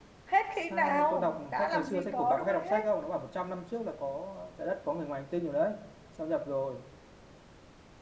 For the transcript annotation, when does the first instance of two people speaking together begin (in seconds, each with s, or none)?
0.6 s